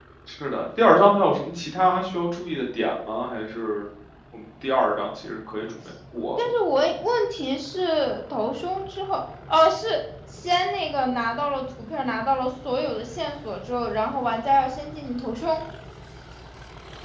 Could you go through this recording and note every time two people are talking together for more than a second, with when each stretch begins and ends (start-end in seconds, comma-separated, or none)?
none